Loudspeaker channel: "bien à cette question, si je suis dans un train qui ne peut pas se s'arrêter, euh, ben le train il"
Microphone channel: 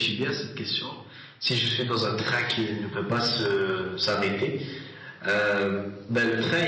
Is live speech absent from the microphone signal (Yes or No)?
Yes